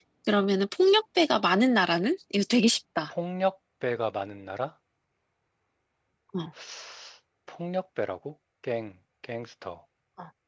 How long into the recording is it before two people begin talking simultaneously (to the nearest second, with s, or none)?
none